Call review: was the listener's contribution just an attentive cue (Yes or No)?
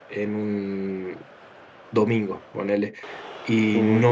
Yes